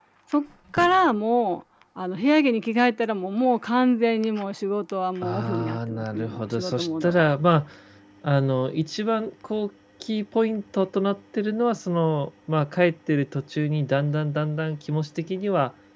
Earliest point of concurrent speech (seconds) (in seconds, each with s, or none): 5.2 s